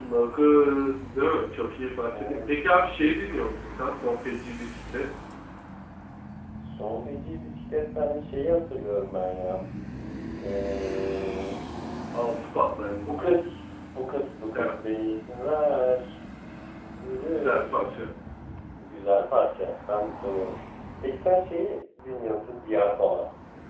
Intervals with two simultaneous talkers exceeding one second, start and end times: none

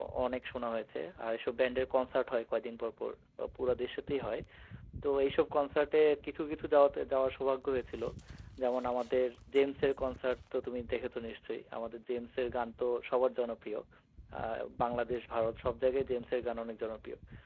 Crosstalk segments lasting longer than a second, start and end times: none

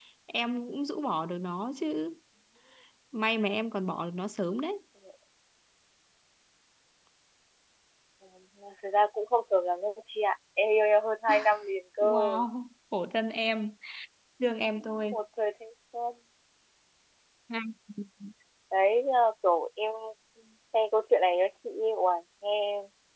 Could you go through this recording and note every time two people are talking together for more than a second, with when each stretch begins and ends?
none

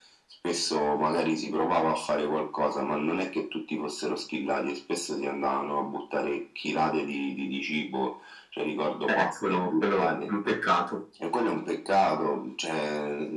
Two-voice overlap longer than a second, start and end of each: 9.1-10.3

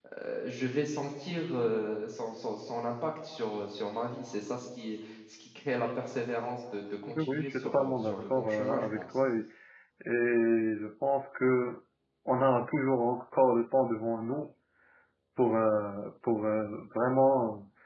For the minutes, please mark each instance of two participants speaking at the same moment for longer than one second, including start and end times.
7.2-9.0

